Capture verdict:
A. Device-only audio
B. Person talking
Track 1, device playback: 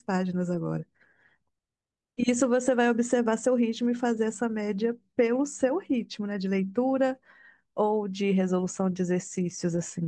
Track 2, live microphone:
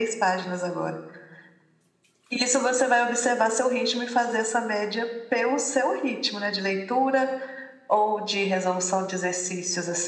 A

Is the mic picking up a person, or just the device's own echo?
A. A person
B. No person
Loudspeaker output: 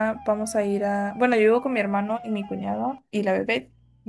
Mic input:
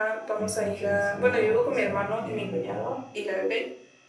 A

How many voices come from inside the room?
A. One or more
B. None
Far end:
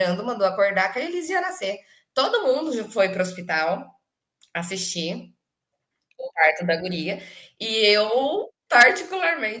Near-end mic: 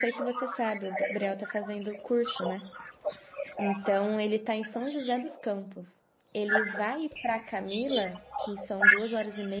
A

